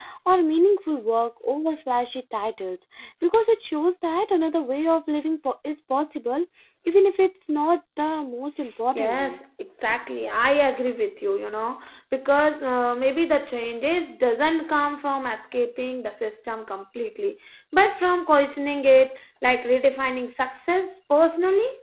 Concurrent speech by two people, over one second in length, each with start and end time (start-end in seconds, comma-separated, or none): none